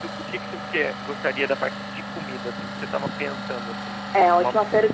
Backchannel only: No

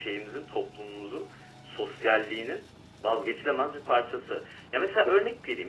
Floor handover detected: No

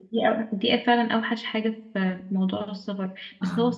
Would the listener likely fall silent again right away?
Yes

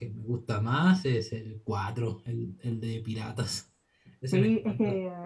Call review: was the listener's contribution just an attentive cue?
No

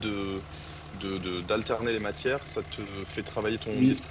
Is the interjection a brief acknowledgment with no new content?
Yes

